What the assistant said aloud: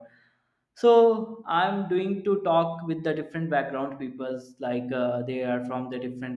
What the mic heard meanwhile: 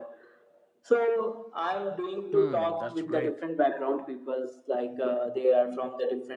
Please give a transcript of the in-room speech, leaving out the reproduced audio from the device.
Hmm, that's great.

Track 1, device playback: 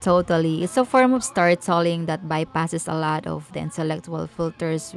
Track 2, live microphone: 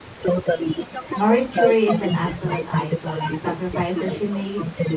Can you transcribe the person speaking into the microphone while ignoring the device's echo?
Marie Curie is an absolute icon. The sacrifices she made,

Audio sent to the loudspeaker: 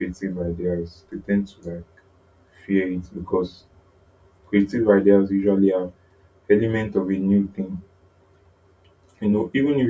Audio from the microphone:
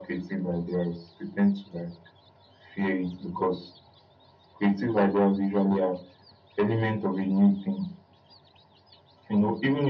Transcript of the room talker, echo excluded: none

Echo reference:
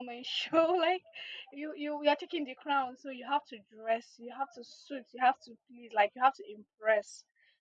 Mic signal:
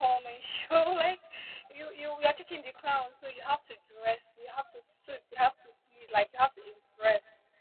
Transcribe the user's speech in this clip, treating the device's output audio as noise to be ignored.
none

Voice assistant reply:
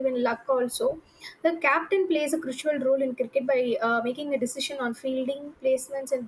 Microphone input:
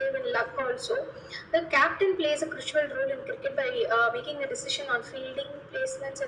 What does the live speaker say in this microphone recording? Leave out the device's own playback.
none

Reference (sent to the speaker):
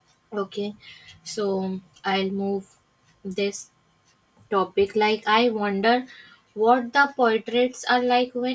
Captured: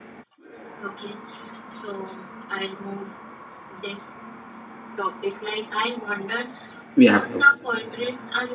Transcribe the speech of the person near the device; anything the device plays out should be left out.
we have to

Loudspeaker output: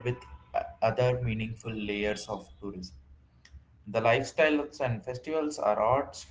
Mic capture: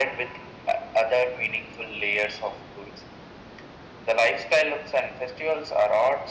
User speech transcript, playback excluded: none

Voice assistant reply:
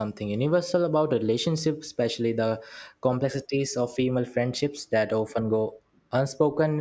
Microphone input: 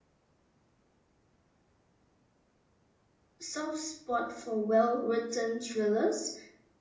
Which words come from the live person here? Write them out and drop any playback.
soft spot for well-written thrillers,

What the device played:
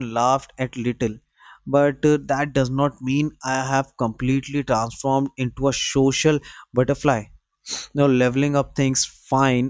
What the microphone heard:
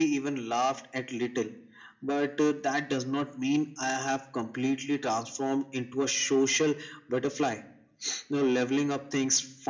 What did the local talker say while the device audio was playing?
none

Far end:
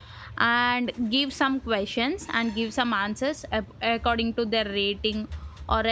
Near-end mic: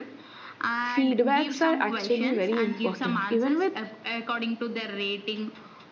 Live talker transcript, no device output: feedbacks are actually very important. Even with

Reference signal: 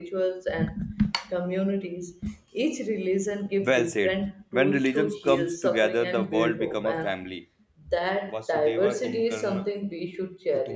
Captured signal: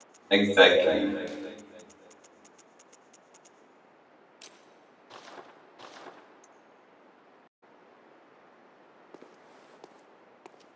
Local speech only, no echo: Exactly.

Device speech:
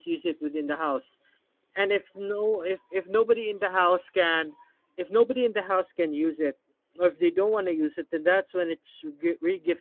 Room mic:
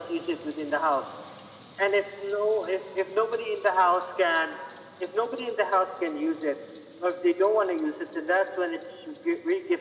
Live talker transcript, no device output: none

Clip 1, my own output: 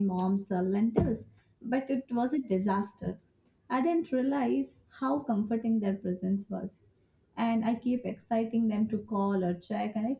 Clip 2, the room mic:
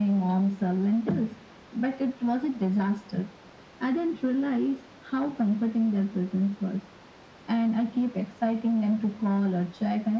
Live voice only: none

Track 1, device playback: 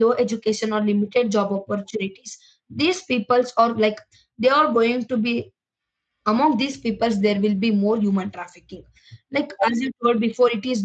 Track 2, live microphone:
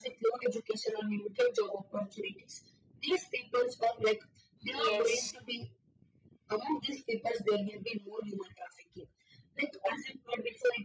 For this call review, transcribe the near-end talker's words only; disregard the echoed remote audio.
yes

